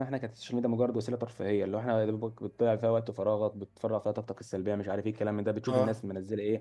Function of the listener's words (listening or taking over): listening